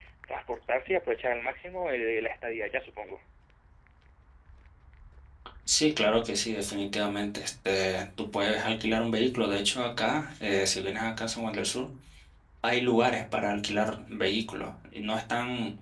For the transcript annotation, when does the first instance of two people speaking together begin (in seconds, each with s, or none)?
none